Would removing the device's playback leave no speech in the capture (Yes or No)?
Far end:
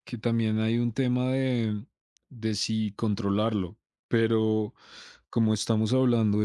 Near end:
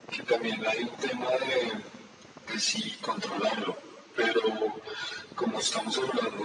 Yes